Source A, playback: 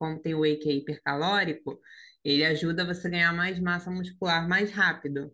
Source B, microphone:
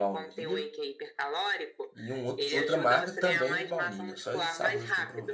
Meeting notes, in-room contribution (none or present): present